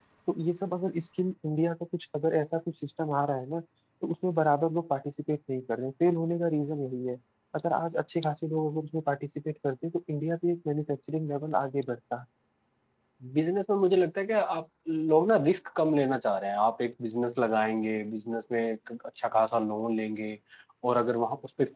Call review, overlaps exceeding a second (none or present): none